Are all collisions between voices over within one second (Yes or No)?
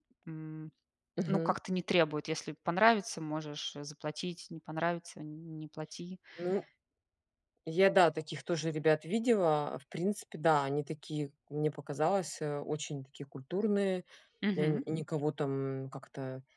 Yes